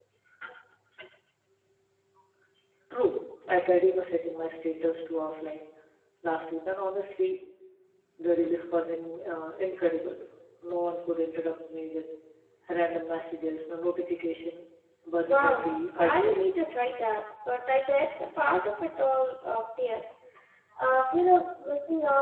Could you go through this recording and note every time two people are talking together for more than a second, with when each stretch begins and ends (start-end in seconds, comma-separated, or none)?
15.2-16.5